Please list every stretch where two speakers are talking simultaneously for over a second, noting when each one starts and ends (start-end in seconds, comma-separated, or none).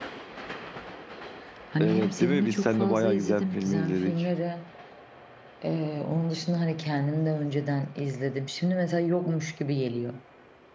1.8-4.1